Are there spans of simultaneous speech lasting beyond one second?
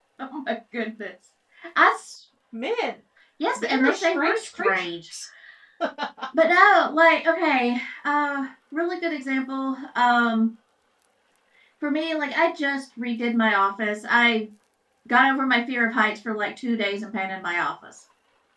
Yes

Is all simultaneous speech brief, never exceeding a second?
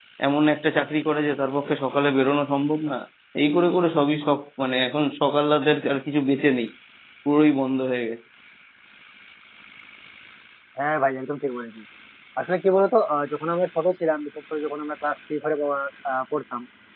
Yes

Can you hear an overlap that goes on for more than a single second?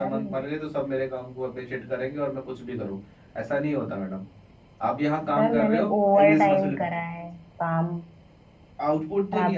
Yes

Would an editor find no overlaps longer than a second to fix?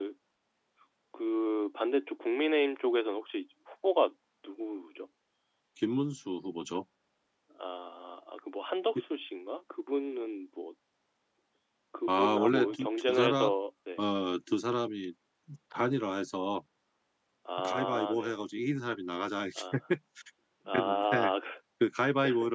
No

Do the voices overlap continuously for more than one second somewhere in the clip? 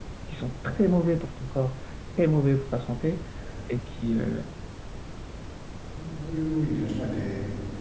No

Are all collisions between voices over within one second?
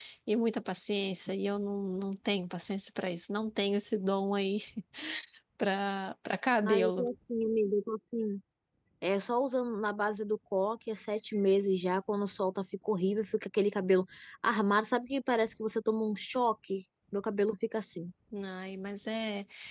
Yes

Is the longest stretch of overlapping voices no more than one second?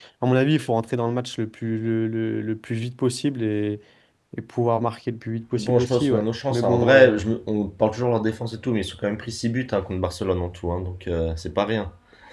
No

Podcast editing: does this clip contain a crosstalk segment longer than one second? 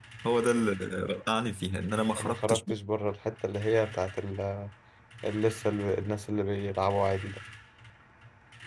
No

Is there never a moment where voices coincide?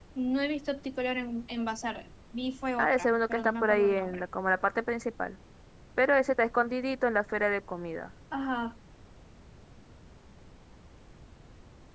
No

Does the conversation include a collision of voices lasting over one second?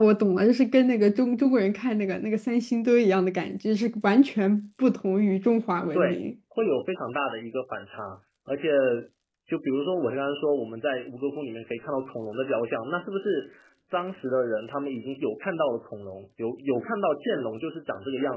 No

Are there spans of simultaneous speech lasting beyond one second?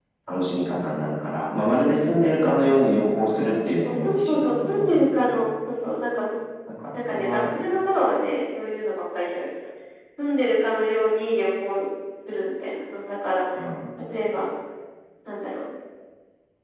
Yes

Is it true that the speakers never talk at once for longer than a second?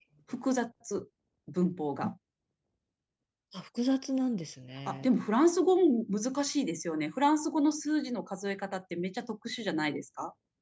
Yes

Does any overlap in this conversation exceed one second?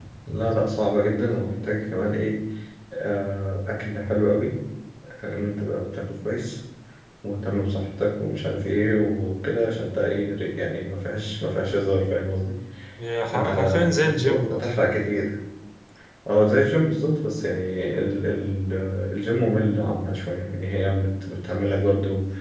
Yes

